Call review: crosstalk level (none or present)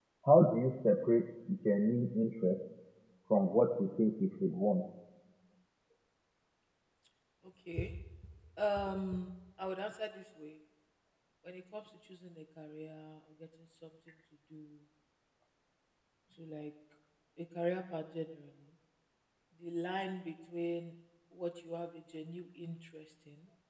none